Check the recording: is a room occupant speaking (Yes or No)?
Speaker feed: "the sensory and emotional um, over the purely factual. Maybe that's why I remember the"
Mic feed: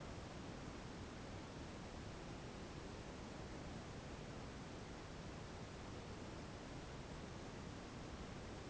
No